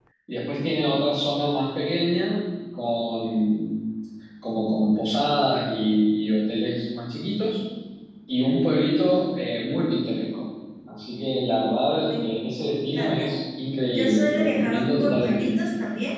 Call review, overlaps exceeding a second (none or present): present